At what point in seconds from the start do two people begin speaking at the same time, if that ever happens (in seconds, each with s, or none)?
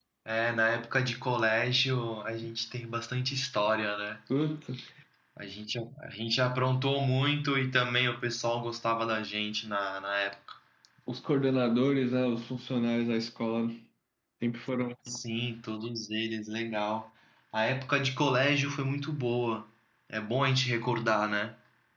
none